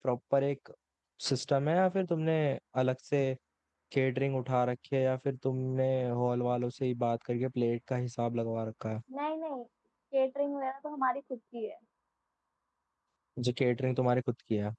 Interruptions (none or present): none